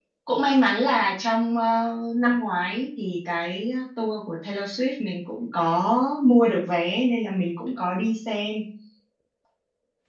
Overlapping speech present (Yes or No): No